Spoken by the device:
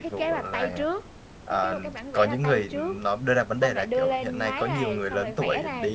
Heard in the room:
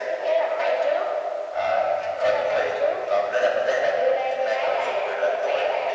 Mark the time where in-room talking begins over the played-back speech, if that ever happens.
none

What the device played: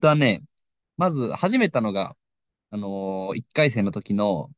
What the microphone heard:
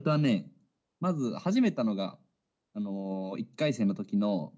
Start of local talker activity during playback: none

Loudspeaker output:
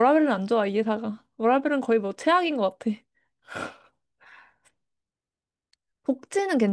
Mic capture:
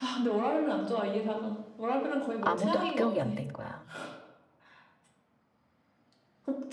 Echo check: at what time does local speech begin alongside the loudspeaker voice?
2.4 s

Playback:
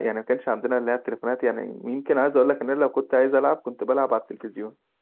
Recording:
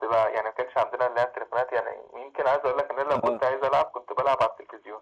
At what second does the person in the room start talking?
3.0 s

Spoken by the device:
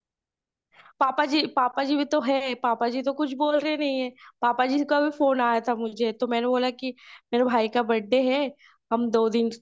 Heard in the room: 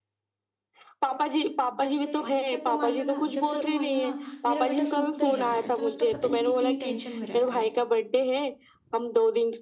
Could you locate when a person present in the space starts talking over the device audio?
1.1 s

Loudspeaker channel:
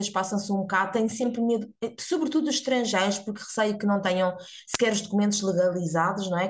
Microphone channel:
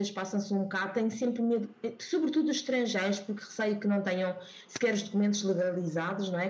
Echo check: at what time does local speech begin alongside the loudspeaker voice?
none

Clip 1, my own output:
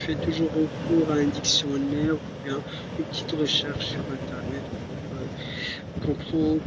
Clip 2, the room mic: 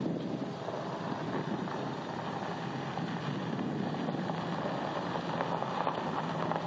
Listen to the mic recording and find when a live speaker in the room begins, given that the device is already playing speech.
none

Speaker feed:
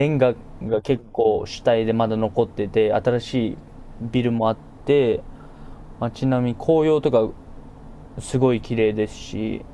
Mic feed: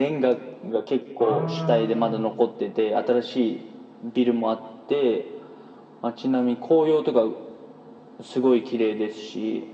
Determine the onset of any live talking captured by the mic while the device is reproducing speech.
1.2 s

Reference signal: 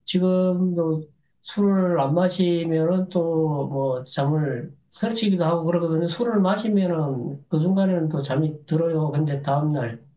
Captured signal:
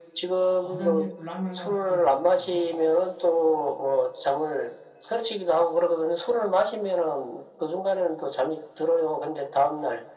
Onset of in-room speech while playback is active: 0.6 s

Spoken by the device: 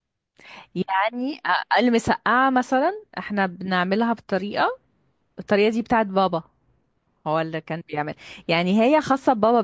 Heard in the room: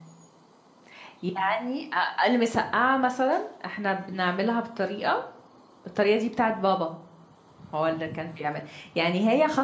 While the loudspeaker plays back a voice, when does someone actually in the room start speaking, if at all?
none

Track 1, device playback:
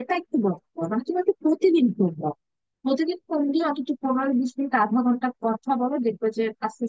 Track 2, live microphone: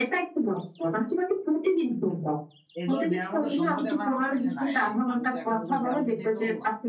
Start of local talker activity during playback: 2.8 s

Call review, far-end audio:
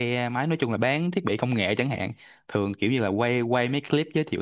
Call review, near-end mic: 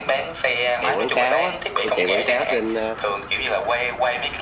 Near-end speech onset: 0.8 s

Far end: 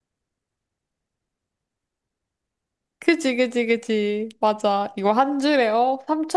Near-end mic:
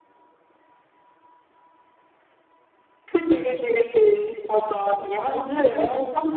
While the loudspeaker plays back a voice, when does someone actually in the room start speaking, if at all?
5.0 s

